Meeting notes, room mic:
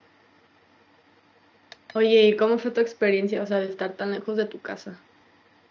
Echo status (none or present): none